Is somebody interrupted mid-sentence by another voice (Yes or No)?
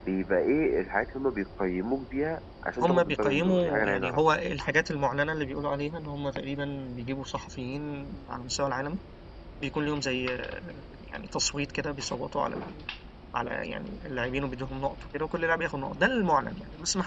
Yes